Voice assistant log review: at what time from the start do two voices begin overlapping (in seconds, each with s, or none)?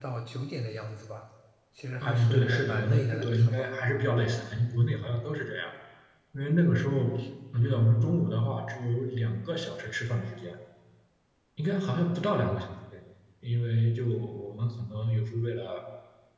2.0 s